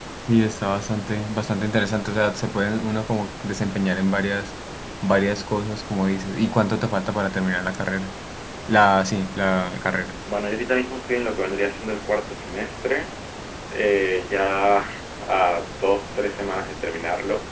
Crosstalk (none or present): none